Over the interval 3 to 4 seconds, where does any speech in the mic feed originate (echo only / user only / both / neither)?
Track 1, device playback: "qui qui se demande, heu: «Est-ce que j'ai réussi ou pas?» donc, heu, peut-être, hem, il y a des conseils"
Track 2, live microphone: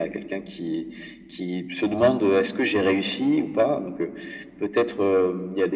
echo only